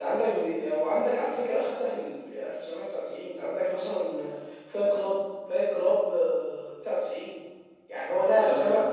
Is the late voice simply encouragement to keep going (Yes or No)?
Yes